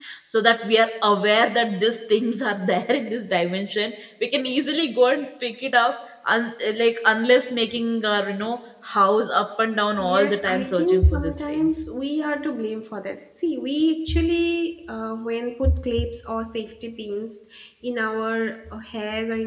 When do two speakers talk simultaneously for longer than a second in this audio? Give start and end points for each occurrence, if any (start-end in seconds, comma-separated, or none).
10.0-11.7